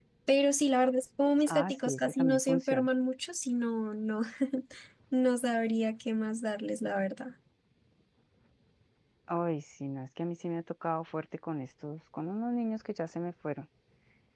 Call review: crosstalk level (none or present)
present